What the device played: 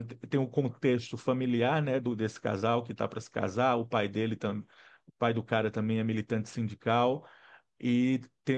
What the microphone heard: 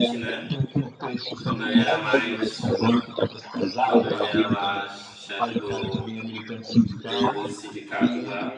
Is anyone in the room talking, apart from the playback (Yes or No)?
Yes